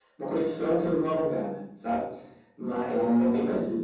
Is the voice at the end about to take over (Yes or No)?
No